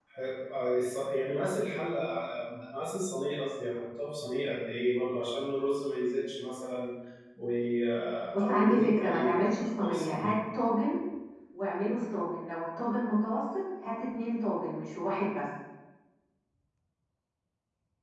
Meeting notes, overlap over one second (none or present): present